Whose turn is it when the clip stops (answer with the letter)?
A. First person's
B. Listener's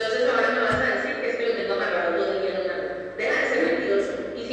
A